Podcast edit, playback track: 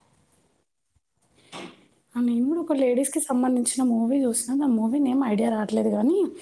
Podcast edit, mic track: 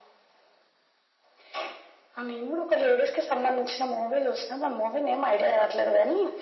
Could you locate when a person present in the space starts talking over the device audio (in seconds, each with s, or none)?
none